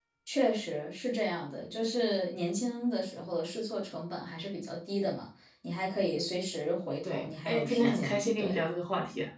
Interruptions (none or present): present